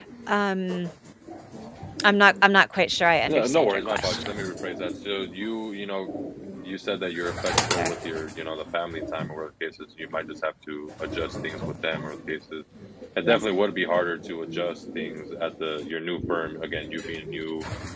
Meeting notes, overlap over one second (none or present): present